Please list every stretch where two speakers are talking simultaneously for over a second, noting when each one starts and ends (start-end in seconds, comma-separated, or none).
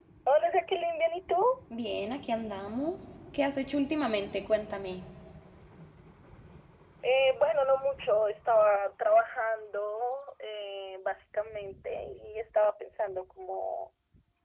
none